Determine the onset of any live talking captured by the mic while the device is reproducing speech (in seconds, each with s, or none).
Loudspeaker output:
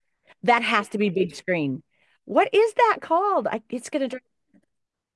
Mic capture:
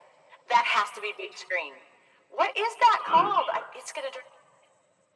3.0 s